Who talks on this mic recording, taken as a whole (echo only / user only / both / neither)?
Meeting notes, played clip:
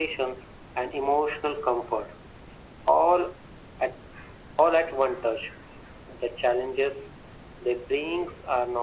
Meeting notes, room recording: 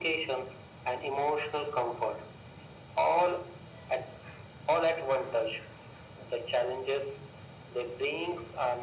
echo only